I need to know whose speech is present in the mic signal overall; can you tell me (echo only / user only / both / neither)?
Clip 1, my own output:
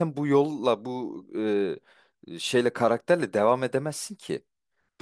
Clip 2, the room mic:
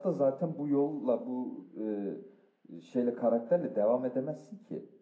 echo only